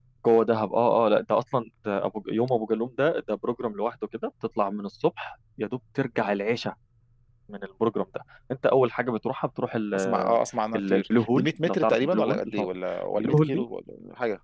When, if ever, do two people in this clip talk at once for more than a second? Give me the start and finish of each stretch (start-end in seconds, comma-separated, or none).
10.8-12.7